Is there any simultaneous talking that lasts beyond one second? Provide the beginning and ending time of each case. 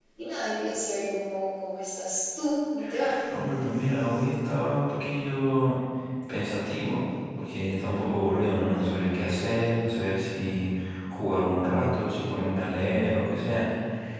none

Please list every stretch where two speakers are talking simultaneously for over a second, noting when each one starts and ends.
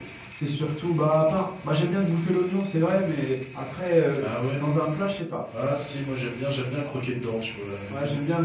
none

